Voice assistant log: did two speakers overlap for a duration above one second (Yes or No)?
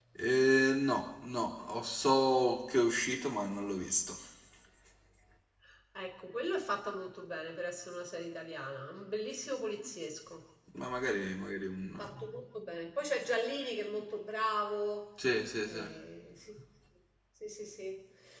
No